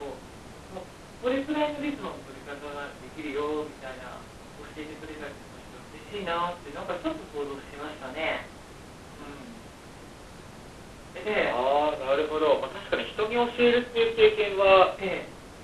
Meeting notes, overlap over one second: none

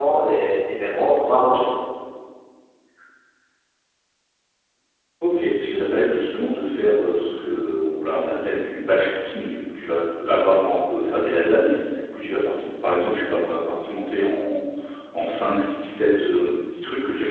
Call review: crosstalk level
none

